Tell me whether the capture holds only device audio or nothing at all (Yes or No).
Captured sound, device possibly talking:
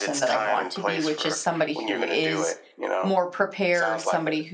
No